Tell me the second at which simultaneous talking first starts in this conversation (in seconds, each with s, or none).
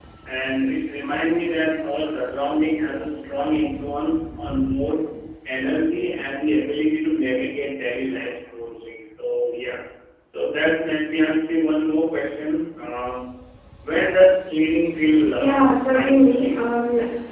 15.4 s